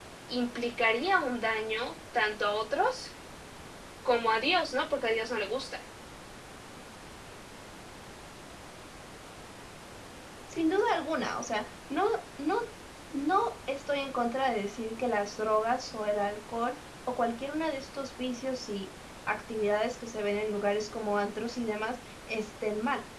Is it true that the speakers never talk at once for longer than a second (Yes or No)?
Yes